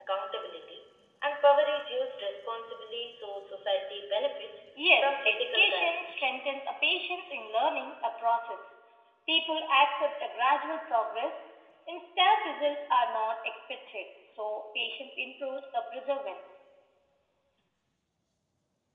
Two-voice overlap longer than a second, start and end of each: 5.0-6.3

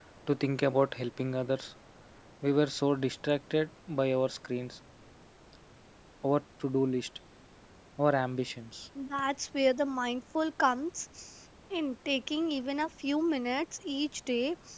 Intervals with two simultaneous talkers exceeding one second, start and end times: none

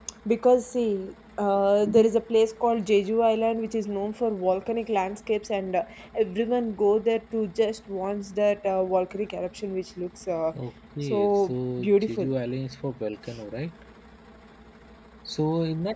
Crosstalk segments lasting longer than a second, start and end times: 11.0-12.3

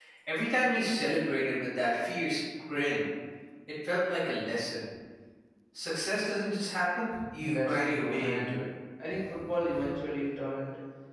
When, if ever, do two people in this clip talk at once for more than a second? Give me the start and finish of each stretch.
7.4-8.7

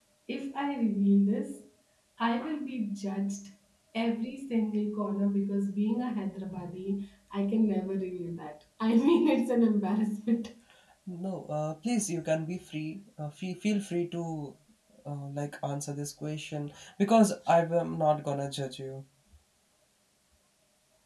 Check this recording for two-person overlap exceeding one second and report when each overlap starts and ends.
none

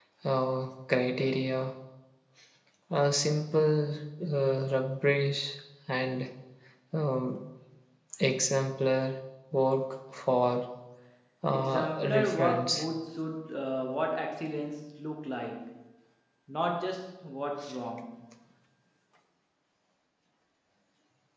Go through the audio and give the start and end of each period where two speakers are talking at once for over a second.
11.5-12.8

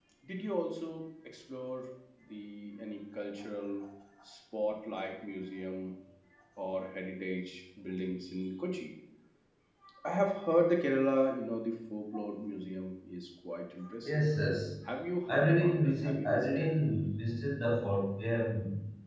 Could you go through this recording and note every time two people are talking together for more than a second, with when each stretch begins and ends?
15.3-16.8

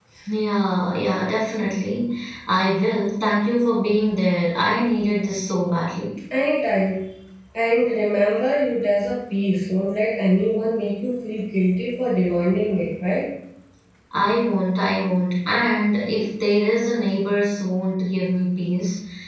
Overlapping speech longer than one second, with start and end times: none

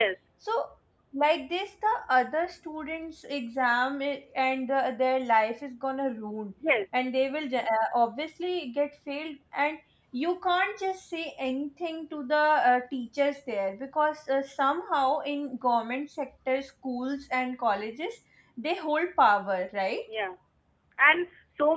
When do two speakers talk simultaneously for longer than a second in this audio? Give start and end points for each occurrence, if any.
none

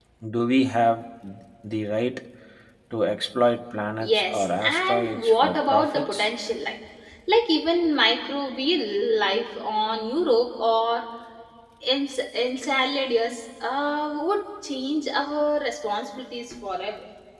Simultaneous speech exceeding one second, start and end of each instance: 4.0-6.3

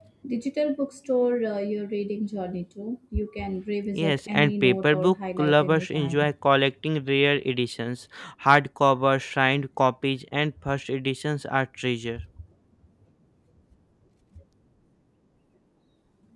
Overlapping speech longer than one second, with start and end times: 4.0-6.3

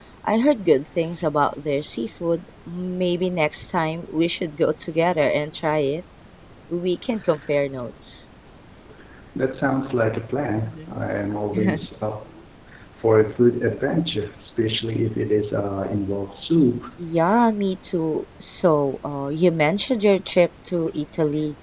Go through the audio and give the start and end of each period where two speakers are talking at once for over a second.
none

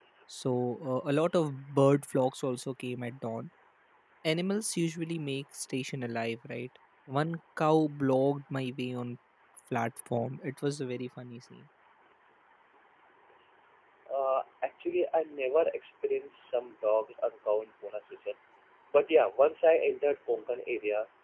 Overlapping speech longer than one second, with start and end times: none

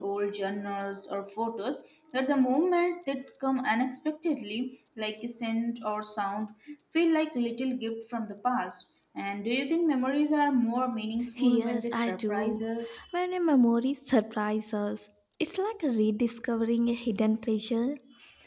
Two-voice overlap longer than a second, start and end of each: 11.4-12.6

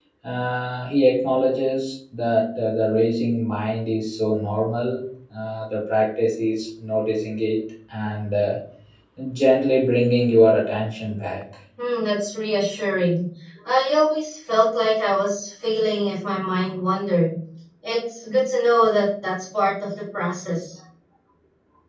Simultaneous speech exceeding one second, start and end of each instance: none

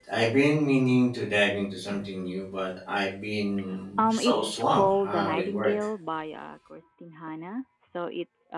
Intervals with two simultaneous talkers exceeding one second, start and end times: 4.0-5.7

